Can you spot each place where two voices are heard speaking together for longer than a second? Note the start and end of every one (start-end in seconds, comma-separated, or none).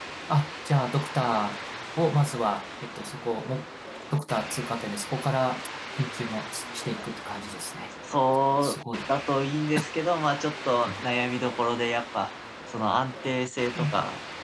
none